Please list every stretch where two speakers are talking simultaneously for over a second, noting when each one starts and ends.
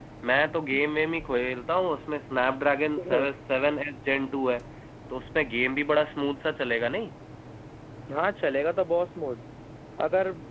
none

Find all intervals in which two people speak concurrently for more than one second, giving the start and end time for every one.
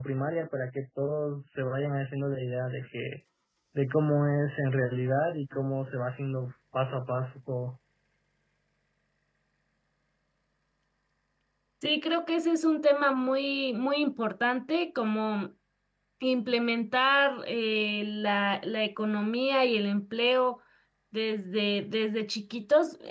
none

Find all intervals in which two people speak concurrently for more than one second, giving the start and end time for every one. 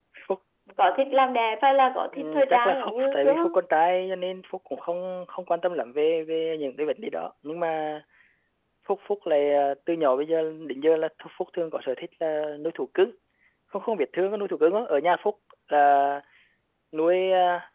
2.1-3.5

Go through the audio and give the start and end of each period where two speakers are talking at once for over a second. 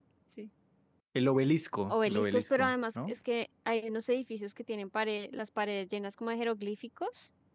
1.9-3.1

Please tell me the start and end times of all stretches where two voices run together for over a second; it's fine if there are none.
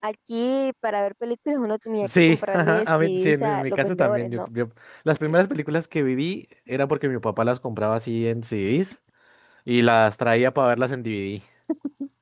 2.0-4.5

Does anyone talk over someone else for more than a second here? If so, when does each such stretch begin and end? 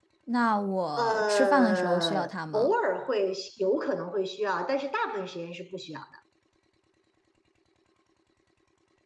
1.0-2.7

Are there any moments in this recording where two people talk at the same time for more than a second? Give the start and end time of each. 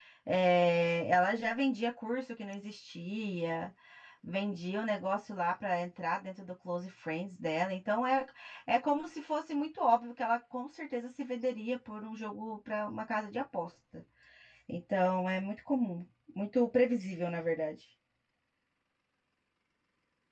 none

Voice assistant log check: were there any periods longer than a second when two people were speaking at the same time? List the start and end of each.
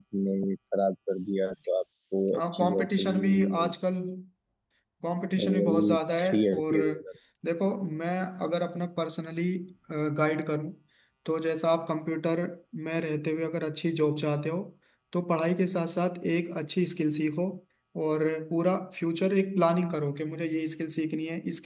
2.3-3.7, 5.4-6.8

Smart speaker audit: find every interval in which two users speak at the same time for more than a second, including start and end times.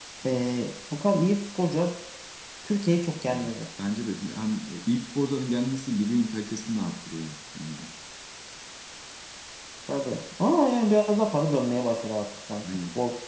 none

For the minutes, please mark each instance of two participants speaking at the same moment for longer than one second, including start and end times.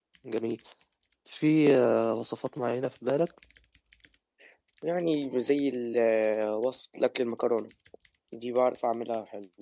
none

